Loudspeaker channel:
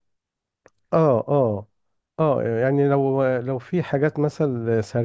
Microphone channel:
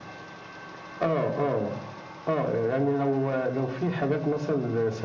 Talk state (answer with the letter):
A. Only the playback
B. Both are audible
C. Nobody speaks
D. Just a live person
A